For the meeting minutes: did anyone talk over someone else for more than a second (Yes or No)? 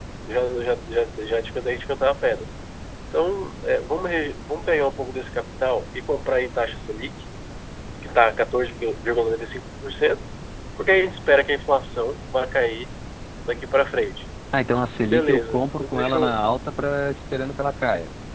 Yes